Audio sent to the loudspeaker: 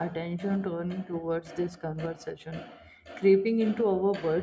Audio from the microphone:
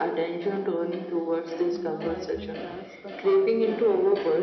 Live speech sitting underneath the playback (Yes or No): Yes